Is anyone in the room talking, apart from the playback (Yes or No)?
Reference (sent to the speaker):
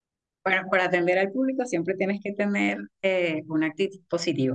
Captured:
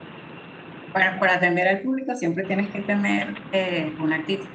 No